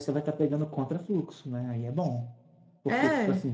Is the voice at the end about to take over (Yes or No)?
No